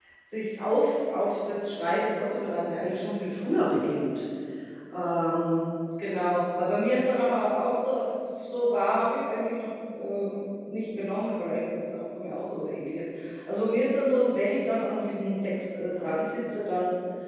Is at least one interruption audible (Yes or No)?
No